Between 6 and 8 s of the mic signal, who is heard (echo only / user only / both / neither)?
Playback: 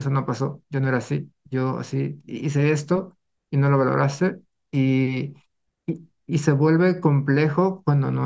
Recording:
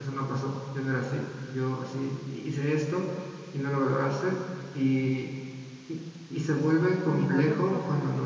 both